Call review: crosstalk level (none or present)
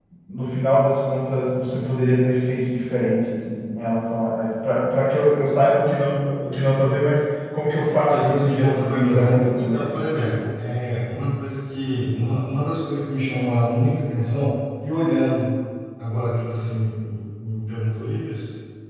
present